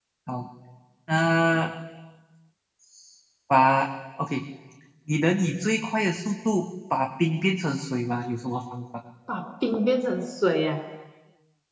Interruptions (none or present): none